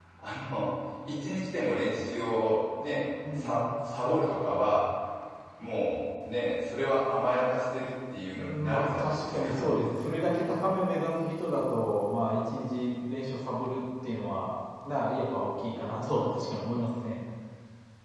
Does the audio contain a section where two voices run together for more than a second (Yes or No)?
Yes